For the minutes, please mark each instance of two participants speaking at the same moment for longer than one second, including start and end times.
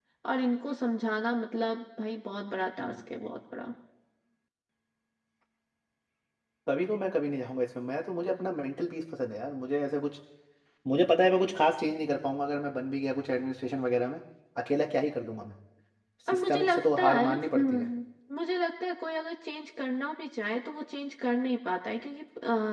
16.3-17.9

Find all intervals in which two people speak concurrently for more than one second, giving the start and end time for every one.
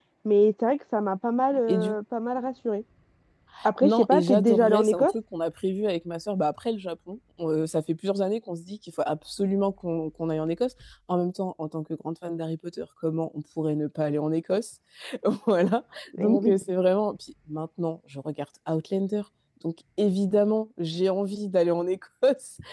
3.8-5.1

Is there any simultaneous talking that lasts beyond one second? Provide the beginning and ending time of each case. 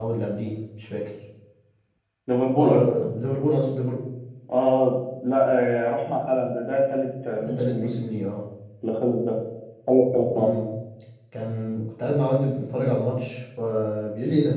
none

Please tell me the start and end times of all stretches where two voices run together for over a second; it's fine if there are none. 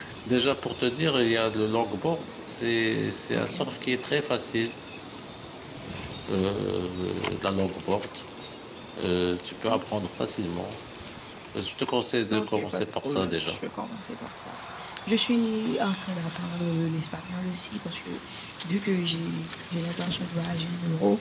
12.3-13.6

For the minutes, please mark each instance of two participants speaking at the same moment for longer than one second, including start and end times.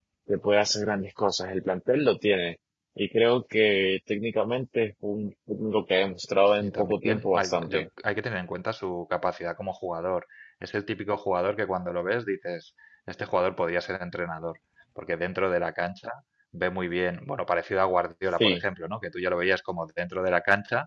6.5-7.9

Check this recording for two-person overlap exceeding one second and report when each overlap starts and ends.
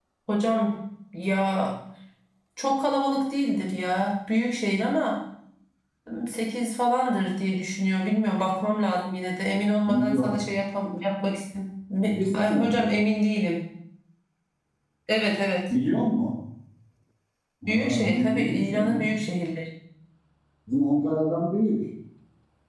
17.7-19.1

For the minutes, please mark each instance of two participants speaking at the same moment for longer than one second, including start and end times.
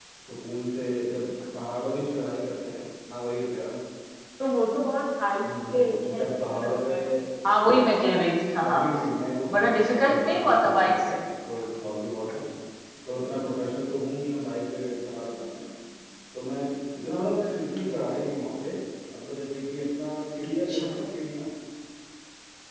5.7-6.9, 9.6-11.2

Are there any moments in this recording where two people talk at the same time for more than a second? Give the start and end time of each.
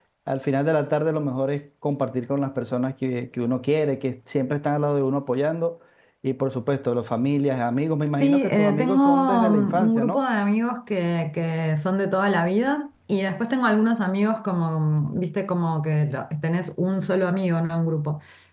8.2-10.2

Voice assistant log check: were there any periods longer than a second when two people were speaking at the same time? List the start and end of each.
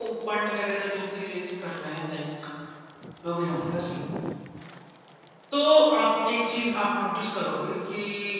none

